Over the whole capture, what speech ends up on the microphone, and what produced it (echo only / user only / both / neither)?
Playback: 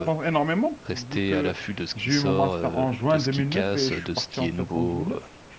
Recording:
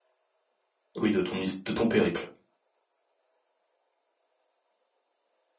user only